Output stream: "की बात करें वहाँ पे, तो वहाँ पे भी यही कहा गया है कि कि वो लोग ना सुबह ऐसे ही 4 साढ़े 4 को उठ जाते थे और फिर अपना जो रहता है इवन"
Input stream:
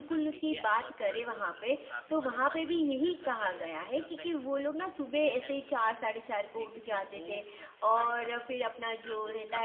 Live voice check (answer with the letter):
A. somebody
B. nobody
A